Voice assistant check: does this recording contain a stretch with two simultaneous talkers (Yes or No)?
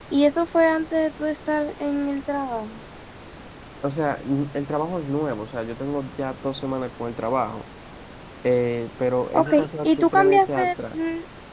Yes